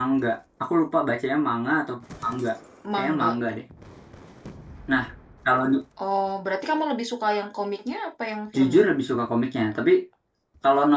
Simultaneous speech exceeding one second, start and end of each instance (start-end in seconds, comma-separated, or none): none